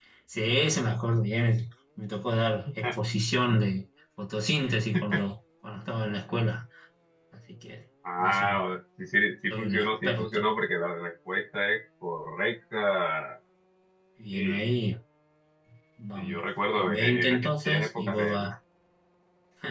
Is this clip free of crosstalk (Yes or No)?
No